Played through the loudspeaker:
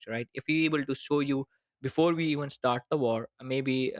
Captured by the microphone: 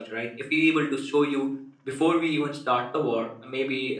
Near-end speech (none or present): none